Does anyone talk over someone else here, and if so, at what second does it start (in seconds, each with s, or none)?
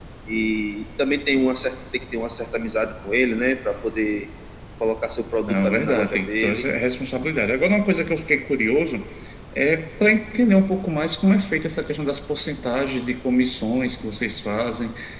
5.4 s